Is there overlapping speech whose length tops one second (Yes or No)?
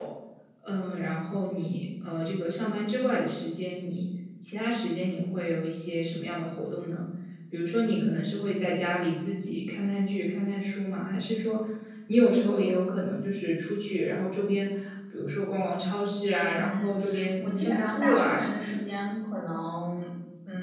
Yes